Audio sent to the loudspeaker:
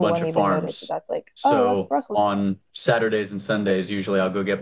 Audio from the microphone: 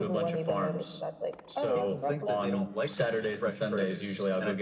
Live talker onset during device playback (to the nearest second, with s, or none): 2 s